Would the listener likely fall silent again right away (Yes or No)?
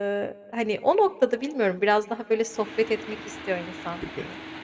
No